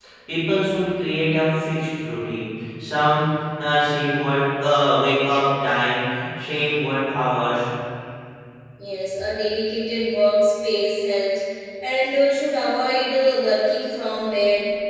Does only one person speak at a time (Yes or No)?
Yes